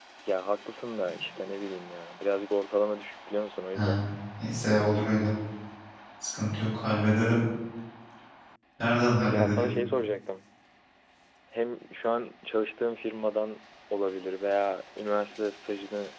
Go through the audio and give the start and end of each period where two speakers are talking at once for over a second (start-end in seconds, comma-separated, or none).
none